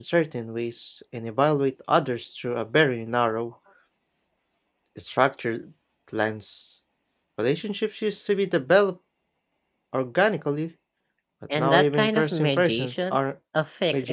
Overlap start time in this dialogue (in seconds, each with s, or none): 11.6 s